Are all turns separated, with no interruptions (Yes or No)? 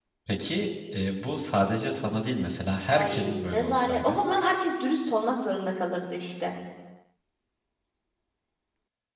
No